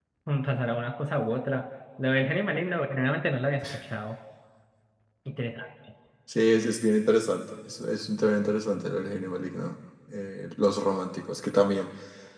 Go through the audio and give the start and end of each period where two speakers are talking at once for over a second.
none

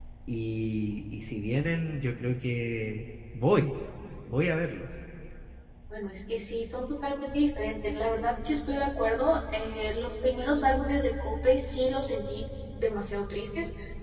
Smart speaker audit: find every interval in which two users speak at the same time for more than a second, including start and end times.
none

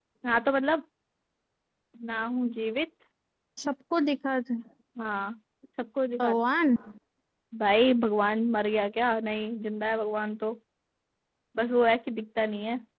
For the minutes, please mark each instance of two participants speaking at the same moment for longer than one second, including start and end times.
none

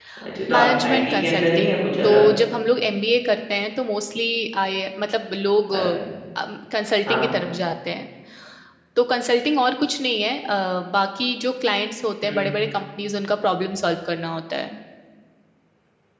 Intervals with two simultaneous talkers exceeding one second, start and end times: 0.5-2.2

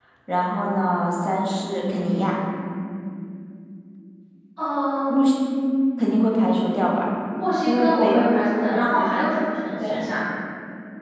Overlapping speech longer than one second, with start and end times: 7.7-9.1

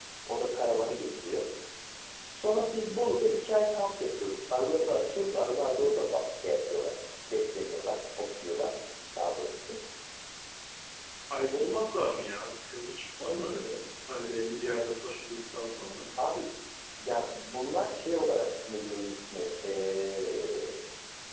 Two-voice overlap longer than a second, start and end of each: none

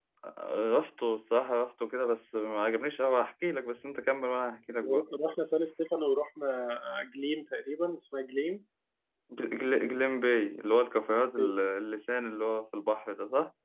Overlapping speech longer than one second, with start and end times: none

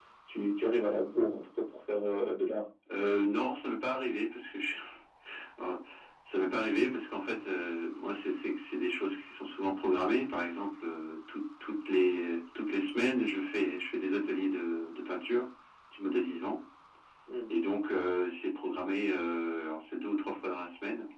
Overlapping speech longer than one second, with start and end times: none

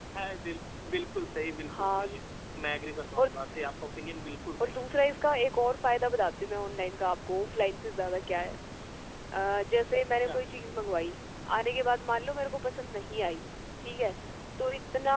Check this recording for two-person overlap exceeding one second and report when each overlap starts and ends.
none

